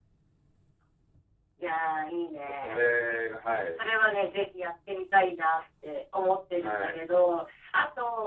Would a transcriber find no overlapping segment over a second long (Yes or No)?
Yes